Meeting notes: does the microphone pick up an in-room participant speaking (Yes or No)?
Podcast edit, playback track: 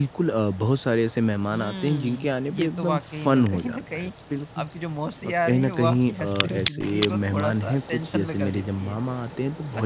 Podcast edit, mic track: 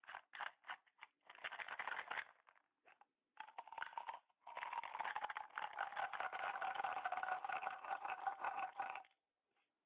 No